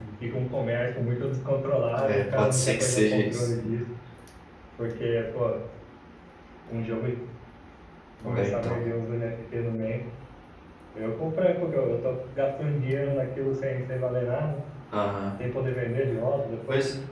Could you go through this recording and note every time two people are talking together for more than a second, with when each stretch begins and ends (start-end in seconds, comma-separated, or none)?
2.0-3.5